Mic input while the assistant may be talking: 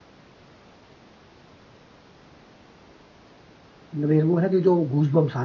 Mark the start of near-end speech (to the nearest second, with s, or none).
4 s